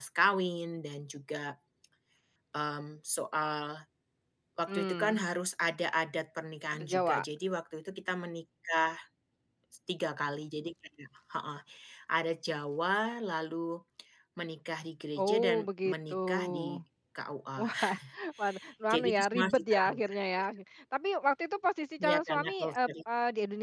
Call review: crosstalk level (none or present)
present